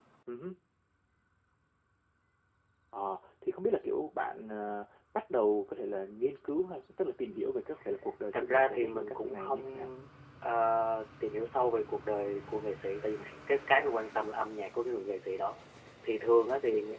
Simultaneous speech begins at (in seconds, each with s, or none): 8.3 s